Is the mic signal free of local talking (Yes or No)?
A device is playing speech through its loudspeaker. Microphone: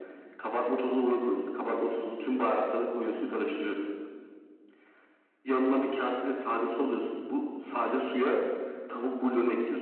Yes